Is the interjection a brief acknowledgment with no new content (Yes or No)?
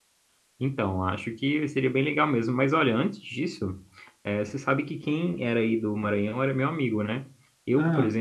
Yes